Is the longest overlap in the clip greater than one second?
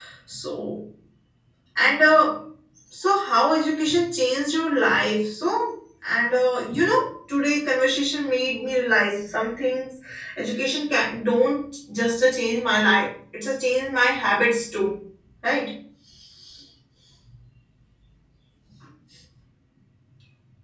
No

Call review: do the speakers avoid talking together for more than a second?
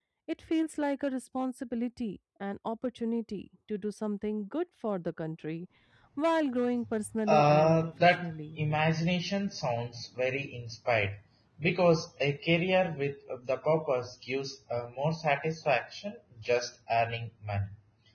No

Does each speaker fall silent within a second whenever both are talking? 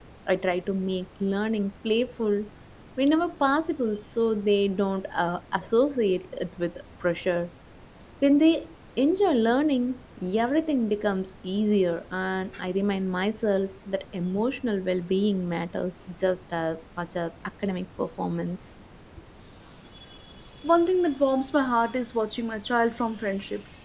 Yes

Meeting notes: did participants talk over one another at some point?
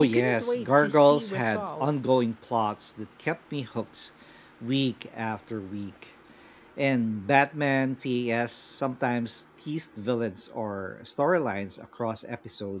Yes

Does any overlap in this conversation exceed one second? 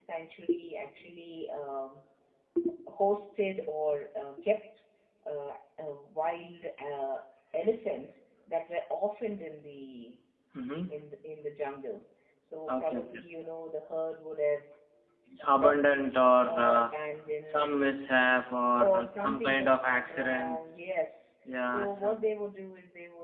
Yes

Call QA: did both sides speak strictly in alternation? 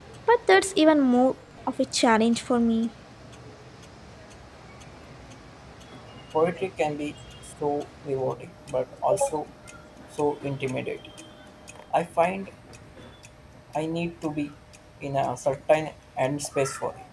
Yes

